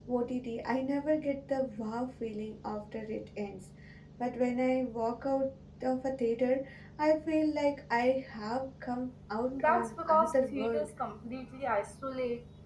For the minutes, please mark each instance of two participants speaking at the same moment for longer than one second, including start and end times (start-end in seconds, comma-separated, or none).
9.5-10.9